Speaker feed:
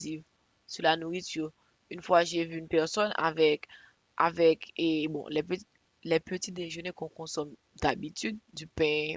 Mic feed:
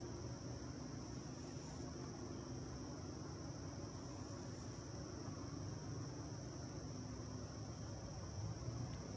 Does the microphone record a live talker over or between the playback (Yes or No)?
No